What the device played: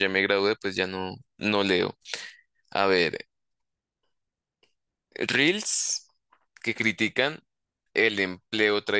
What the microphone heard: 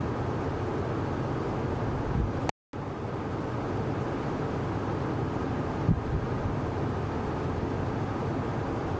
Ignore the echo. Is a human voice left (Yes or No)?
No